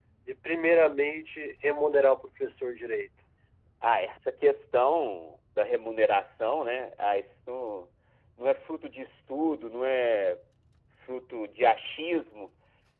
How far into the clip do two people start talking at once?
none

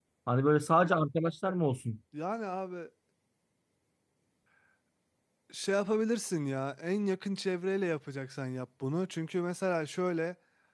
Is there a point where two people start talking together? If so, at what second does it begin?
none

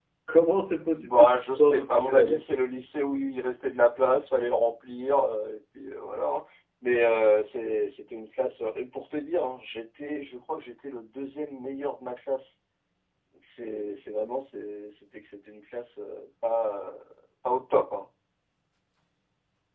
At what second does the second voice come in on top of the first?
0.9 s

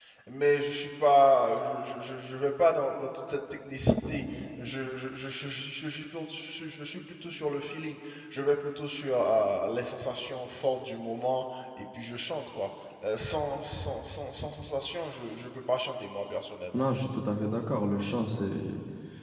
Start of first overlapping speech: none

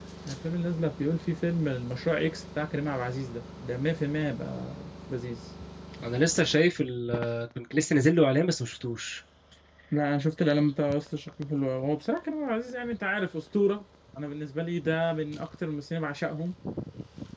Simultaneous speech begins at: none

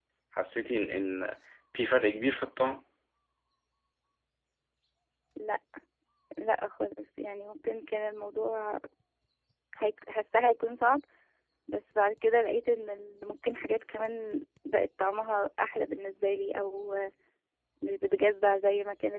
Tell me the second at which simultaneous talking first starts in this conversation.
none

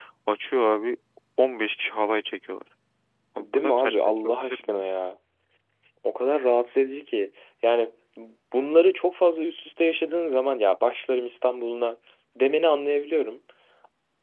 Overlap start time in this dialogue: 3.4 s

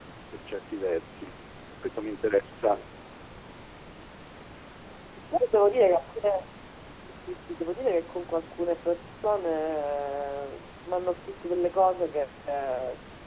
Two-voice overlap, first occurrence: none

